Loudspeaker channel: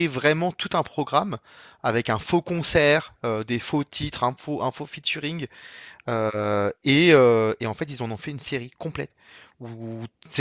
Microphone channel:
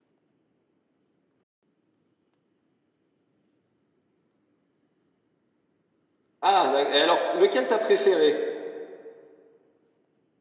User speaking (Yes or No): Yes